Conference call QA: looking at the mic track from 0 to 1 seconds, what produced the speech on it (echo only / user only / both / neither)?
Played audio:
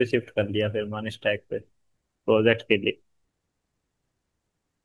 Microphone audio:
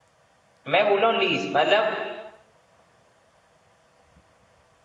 user only